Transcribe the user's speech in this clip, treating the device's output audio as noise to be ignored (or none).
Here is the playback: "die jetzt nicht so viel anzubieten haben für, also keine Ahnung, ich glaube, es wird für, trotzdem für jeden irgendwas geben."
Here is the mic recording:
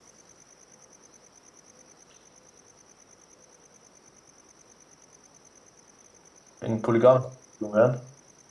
in polygamisch wären?